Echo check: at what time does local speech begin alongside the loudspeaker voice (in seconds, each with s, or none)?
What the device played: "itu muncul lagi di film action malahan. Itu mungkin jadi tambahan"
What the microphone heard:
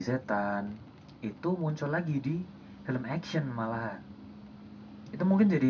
none